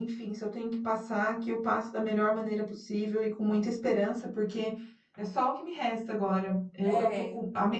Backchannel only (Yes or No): Yes